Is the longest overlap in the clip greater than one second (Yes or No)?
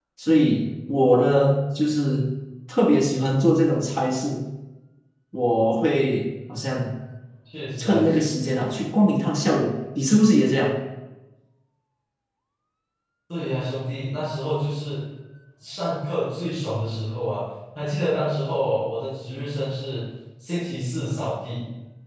No